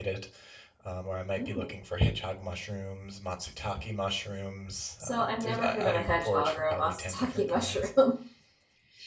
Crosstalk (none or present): present